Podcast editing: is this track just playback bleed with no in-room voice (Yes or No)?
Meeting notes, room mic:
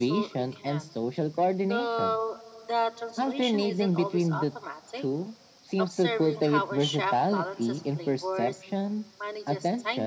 No